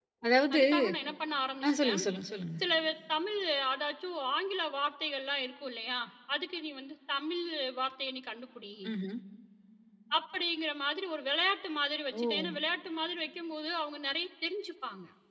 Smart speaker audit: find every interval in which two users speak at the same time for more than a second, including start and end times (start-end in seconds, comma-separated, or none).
none